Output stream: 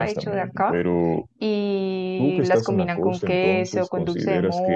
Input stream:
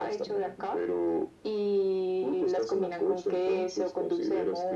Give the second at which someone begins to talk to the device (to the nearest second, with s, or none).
none